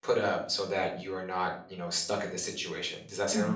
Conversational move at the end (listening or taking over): taking over